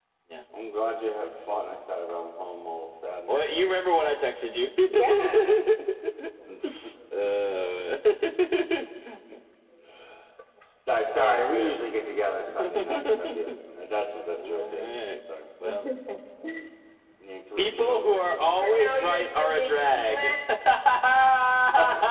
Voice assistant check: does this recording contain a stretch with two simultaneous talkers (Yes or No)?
Yes